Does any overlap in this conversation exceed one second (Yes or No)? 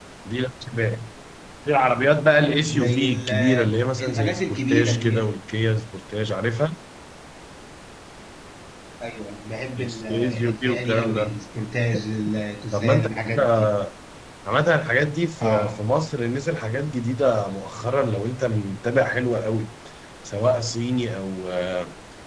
Yes